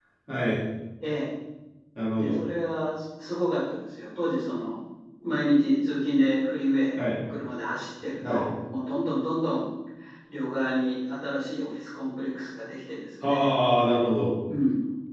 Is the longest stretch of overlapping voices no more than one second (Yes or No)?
Yes